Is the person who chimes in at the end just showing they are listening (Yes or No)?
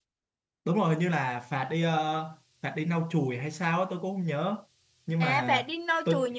No